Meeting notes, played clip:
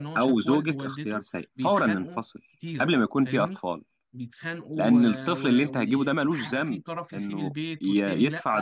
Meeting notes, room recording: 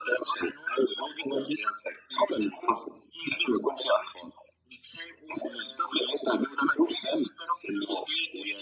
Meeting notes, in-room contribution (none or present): none